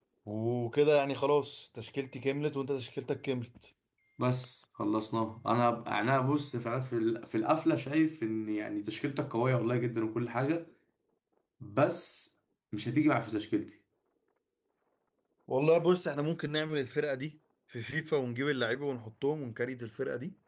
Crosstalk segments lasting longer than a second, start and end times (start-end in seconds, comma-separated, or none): none